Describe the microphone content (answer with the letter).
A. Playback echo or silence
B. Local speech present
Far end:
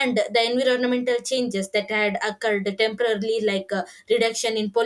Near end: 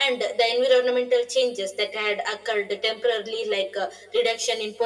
A